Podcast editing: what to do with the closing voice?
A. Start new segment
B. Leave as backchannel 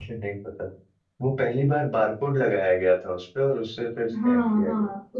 A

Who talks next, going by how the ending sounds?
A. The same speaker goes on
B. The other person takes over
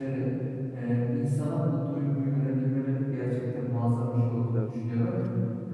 A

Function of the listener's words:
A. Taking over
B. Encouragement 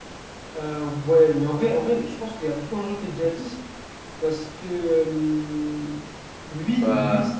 B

